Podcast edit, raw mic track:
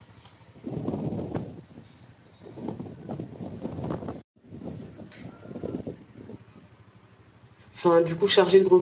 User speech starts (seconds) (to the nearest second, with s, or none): 8 s